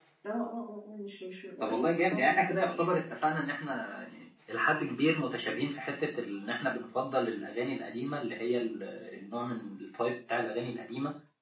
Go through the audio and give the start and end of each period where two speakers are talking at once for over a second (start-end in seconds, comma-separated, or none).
1.6-3.0